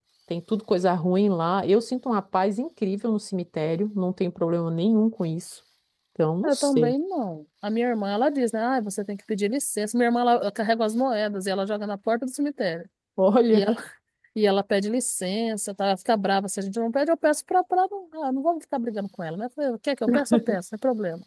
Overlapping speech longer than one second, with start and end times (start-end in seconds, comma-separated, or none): none